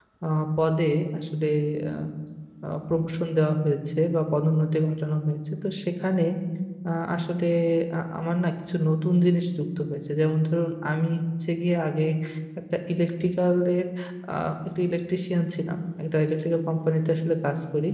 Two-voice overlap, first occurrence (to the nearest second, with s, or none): none